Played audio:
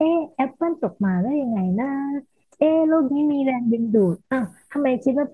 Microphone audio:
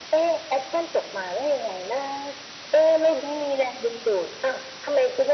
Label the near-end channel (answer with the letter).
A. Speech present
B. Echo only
B